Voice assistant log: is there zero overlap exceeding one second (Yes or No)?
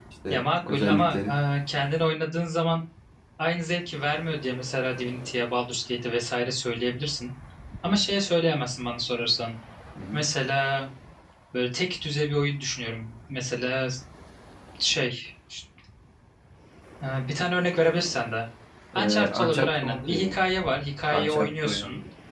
No